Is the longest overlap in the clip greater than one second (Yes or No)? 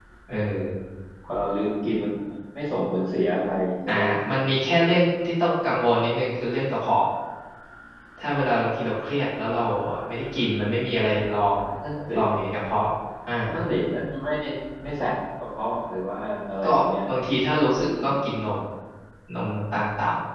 No